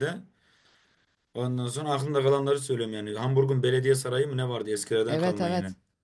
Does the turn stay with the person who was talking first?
No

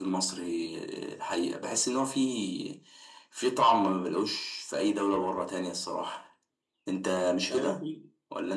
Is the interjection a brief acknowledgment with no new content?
No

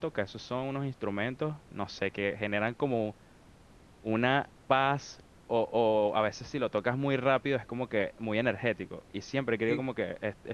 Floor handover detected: No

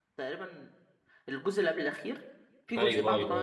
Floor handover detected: Yes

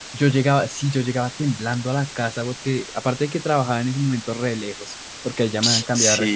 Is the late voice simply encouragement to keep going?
Yes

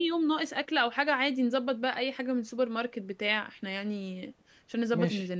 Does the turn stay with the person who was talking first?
No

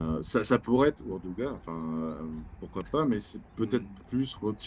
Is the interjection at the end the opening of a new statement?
No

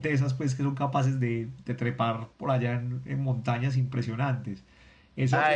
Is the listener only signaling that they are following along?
No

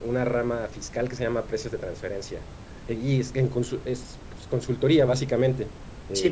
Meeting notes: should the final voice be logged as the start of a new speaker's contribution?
Yes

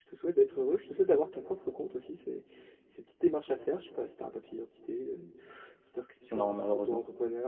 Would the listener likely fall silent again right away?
Yes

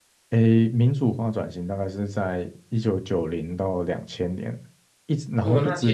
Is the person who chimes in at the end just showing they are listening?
No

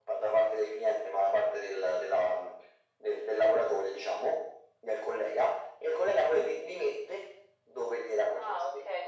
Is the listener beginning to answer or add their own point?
Yes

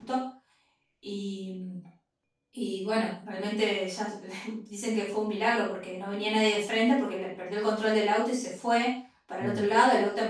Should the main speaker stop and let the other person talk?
No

